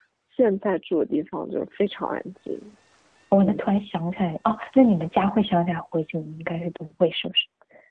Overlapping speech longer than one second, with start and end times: none

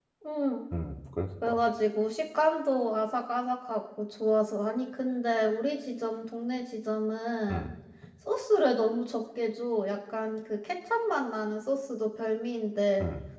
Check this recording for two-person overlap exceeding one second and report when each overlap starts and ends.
none

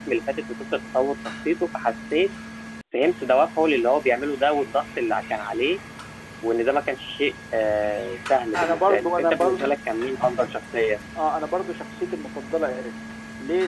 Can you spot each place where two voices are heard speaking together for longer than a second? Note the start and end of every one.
8.6-9.8

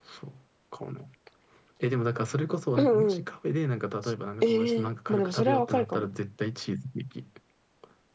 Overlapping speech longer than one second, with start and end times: 4.4-6.0

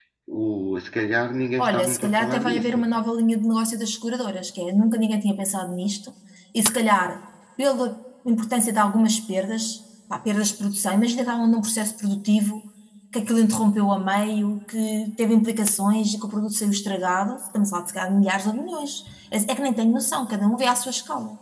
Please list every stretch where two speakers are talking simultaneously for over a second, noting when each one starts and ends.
1.6-2.9

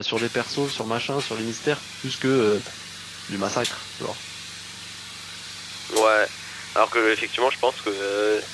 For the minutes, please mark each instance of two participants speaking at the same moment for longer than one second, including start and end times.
none

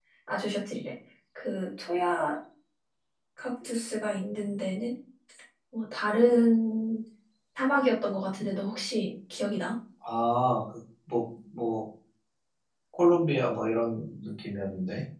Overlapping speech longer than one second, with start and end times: none

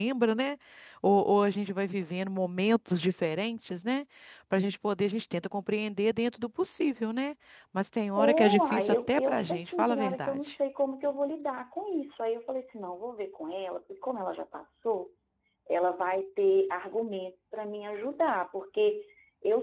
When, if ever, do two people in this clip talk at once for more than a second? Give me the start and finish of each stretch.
8.2-10.5

